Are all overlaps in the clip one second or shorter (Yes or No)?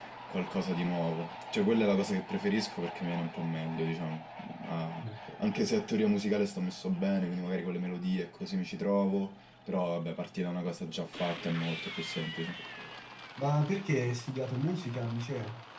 Yes